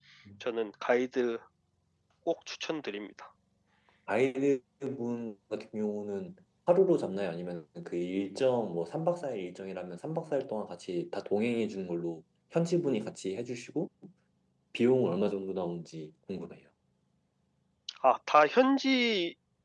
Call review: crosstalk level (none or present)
none